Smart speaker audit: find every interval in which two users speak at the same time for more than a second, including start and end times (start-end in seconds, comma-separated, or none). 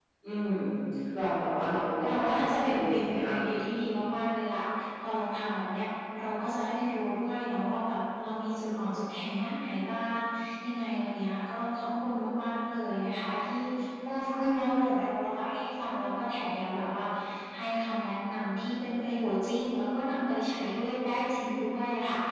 2.0-3.3